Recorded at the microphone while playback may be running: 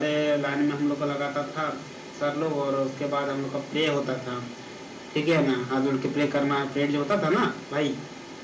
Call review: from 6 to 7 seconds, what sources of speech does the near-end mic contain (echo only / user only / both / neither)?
echo only